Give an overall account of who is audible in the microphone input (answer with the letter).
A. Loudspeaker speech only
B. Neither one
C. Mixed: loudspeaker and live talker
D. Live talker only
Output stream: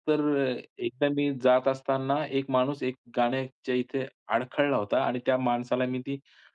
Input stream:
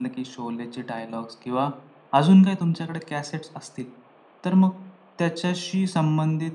D